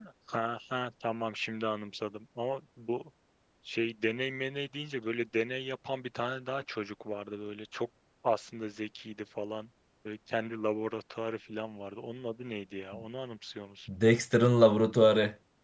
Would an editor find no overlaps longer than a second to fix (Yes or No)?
Yes